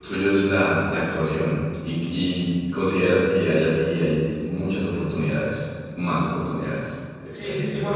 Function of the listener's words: taking over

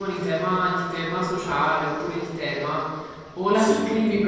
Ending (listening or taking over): listening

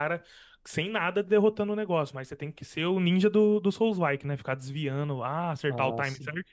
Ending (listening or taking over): listening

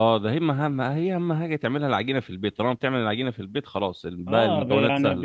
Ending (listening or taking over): taking over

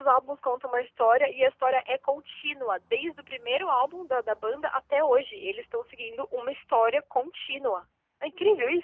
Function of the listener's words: taking over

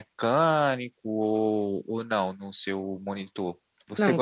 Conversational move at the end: taking over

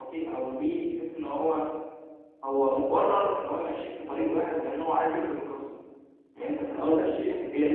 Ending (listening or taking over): taking over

